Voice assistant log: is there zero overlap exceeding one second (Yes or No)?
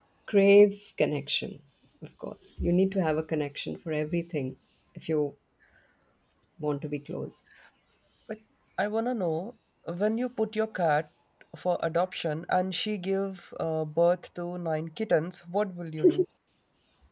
Yes